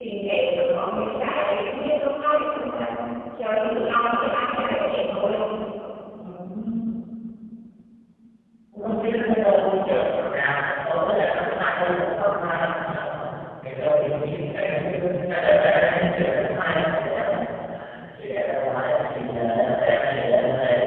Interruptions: none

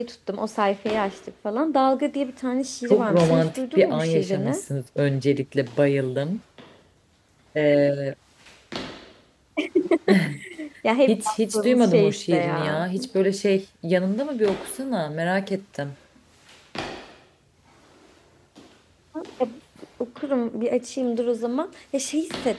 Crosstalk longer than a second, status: present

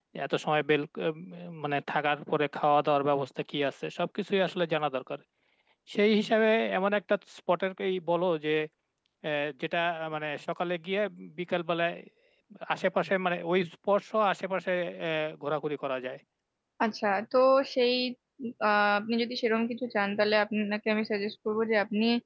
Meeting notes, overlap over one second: none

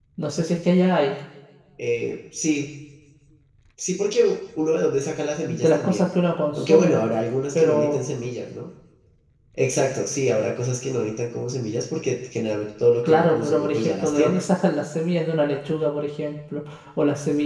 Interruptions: present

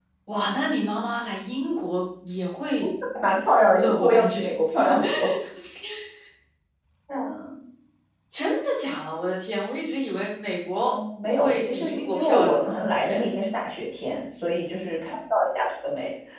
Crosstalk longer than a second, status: present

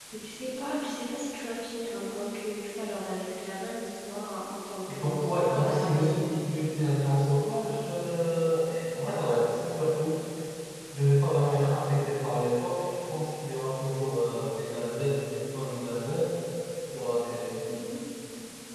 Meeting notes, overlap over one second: present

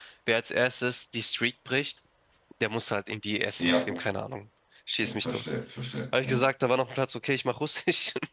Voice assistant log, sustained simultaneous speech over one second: none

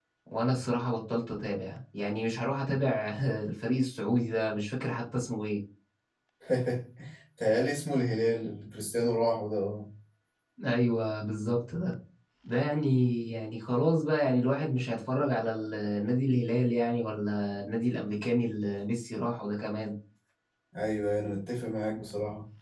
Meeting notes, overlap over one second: none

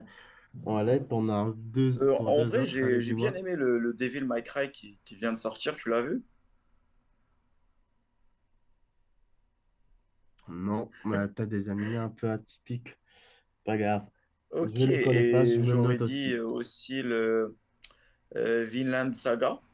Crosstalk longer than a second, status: present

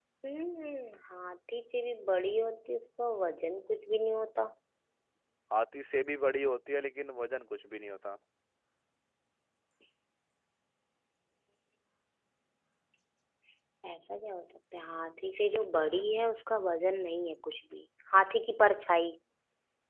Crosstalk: none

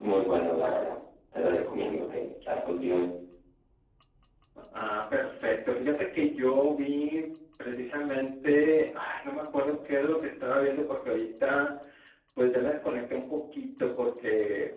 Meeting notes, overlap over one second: none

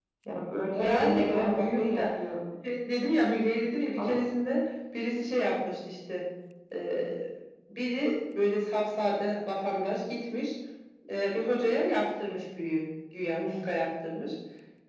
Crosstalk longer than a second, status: present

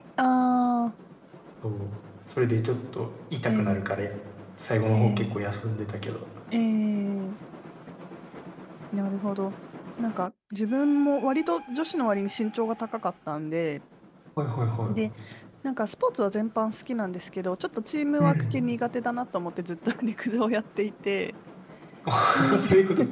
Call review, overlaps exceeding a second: none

